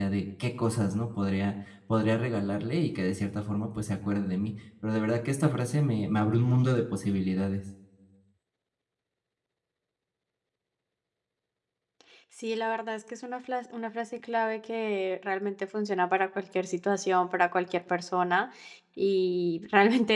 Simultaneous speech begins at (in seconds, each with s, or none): none